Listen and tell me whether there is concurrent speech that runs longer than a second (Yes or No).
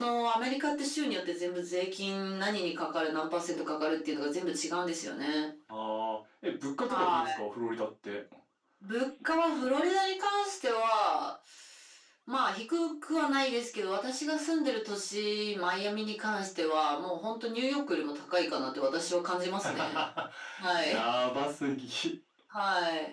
No